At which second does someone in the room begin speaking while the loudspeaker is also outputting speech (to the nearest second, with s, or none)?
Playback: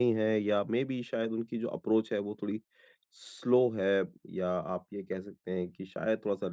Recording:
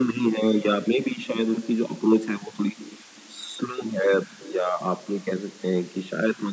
none